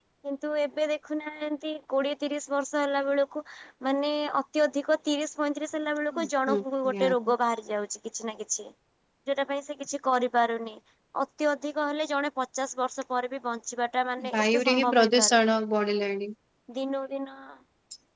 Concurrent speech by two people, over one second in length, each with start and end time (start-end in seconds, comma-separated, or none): 14.3-15.6